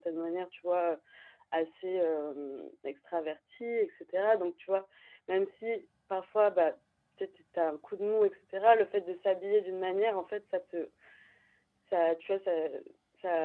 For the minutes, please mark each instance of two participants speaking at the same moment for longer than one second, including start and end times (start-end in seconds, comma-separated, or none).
none